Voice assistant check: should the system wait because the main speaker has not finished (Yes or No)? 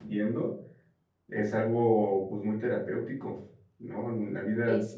Yes